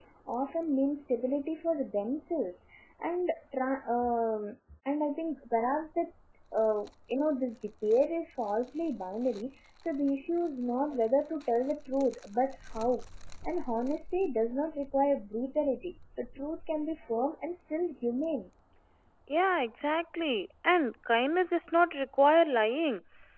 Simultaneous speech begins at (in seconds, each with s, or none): none